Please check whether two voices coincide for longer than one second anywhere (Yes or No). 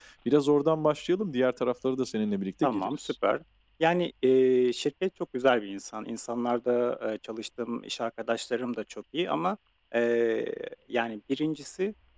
No